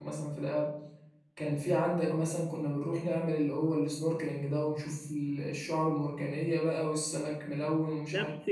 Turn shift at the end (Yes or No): Yes